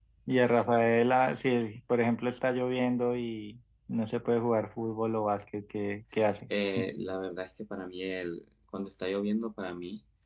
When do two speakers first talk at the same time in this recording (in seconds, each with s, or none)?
none